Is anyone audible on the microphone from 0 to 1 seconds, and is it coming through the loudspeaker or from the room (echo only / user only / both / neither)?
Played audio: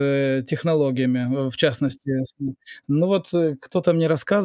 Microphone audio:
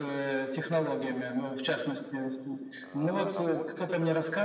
echo only